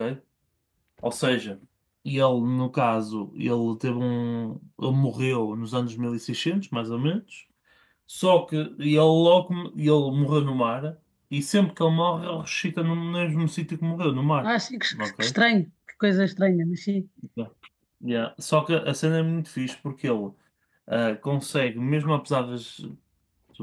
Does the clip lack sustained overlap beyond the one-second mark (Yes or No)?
Yes